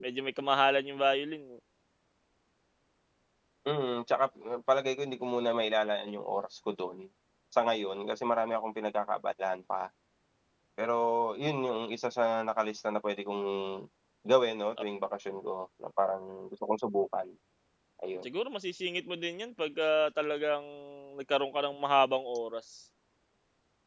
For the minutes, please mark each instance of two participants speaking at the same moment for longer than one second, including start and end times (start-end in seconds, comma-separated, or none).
none